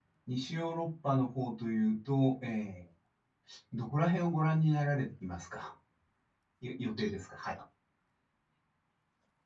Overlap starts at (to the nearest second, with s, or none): none